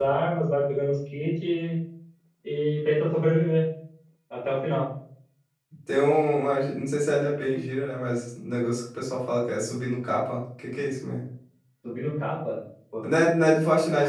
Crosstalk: none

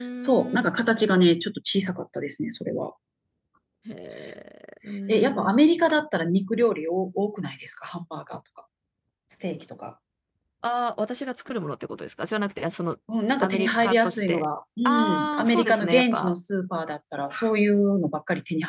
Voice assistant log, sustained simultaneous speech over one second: present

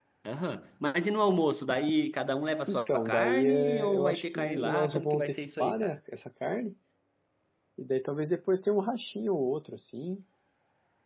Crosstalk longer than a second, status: present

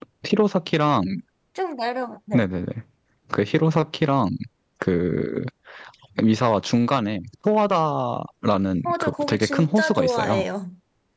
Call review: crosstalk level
present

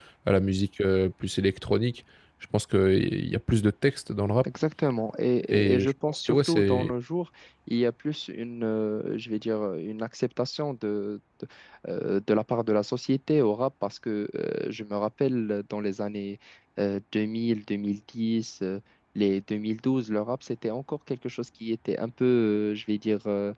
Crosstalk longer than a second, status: present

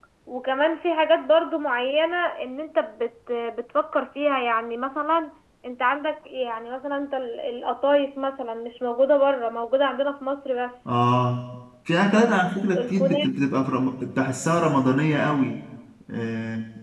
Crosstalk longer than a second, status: none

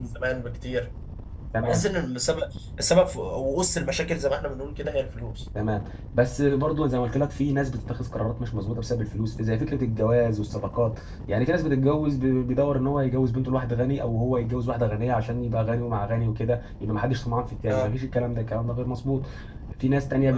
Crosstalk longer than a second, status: none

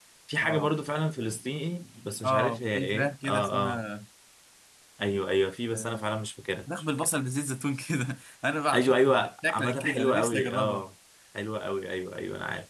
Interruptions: present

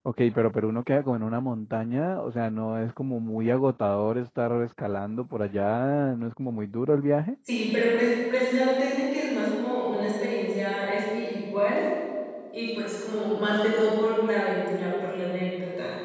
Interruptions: none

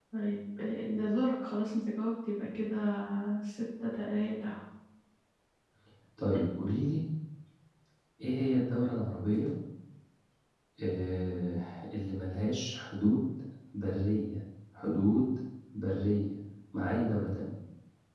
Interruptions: none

